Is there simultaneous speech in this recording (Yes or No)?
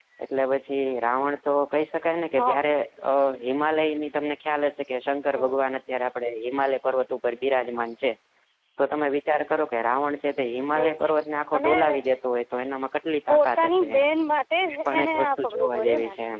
Yes